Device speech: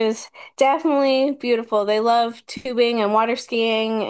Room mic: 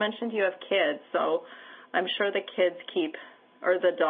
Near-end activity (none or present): present